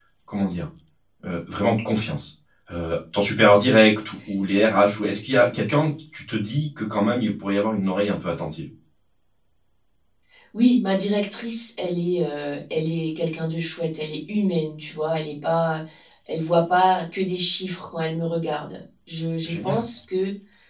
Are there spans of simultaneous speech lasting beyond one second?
No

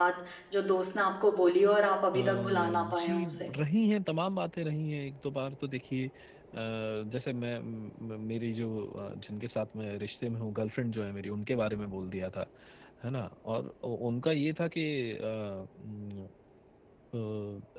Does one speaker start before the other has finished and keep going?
Yes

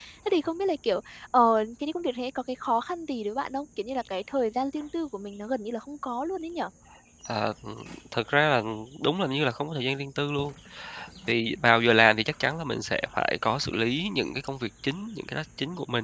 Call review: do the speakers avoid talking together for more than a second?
Yes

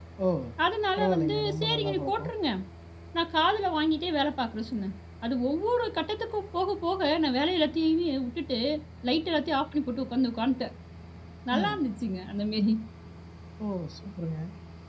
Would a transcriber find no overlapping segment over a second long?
No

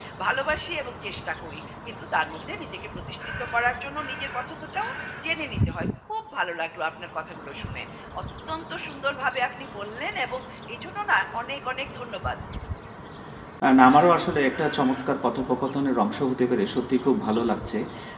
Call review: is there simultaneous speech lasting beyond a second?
No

